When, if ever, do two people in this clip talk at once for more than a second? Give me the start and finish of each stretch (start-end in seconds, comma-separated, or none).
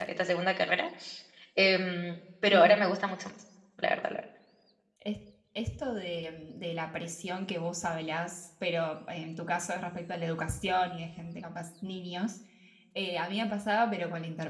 none